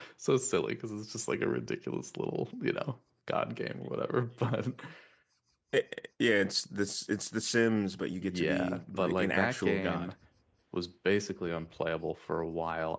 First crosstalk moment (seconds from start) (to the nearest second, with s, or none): 8 s